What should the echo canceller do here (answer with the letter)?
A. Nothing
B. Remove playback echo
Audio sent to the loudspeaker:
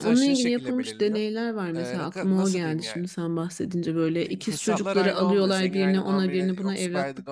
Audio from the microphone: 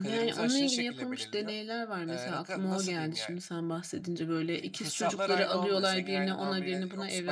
B